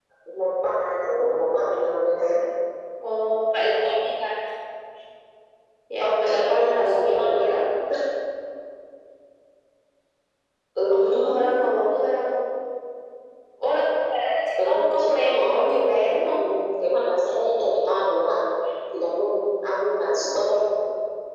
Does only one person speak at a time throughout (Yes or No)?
No